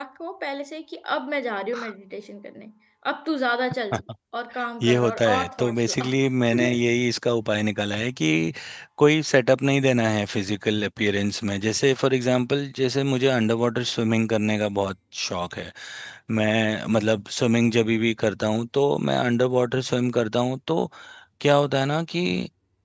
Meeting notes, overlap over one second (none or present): present